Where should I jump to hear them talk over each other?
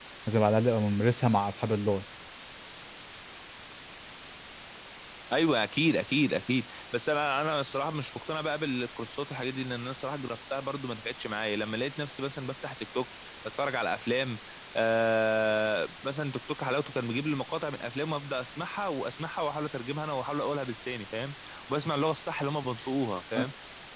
none

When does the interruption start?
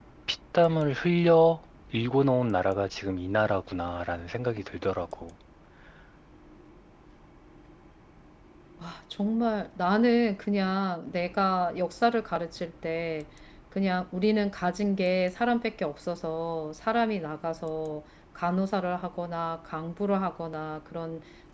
none

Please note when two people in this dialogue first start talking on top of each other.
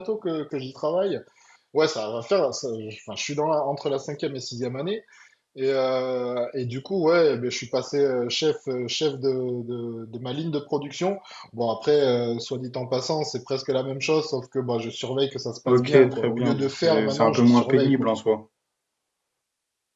15.7 s

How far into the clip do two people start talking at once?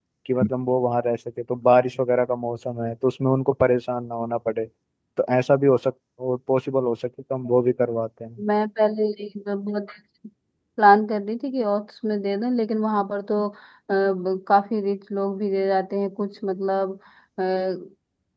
none

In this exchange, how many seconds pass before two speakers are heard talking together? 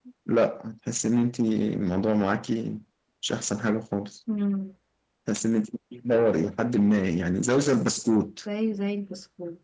none

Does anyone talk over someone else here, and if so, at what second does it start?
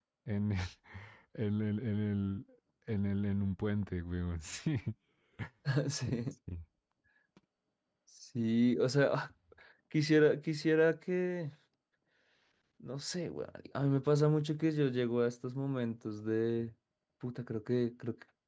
none

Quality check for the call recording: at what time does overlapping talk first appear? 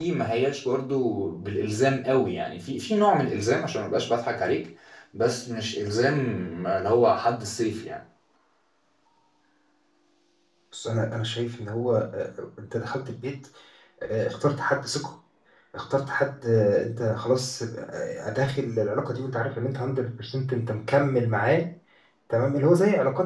none

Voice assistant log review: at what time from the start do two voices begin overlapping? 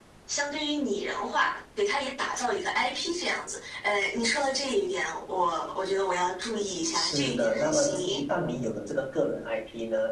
6.9 s

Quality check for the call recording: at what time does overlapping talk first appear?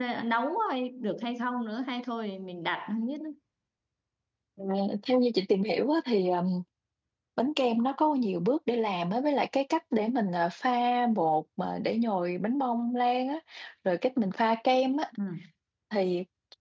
none

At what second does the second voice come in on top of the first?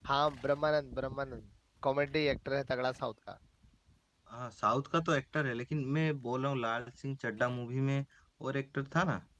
none

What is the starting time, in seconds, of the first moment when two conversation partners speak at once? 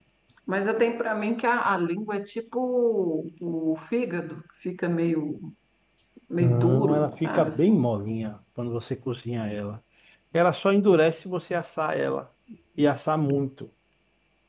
6.4 s

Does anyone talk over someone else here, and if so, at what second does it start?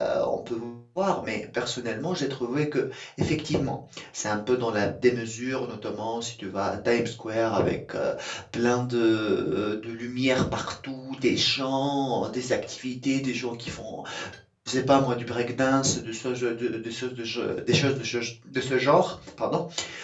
none

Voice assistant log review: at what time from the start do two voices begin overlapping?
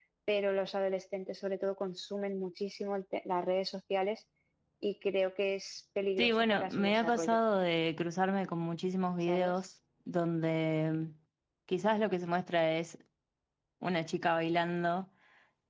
6.2 s

